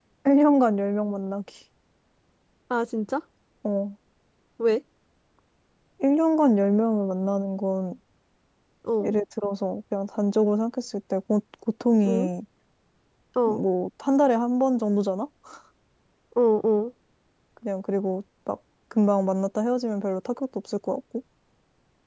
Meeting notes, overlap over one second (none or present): none